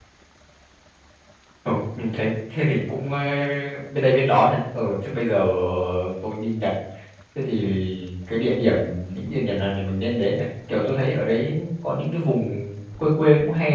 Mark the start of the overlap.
none

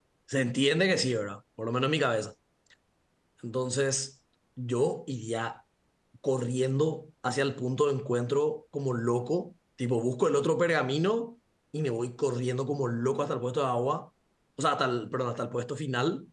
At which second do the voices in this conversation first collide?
none

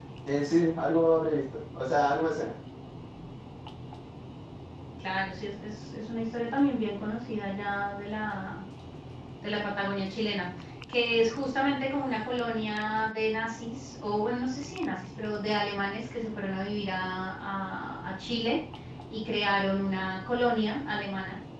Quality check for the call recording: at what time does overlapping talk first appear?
none

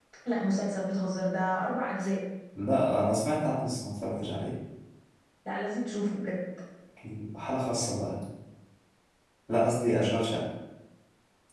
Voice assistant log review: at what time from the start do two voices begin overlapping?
none

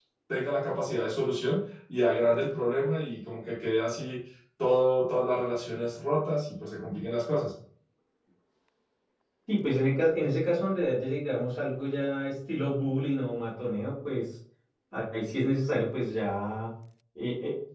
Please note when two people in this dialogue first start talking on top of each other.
none

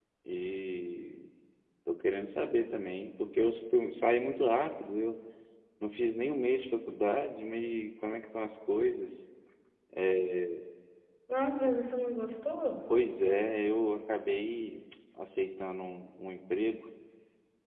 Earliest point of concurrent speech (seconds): none

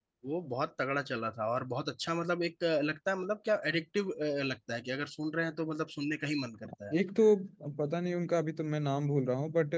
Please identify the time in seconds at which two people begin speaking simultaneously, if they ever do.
none

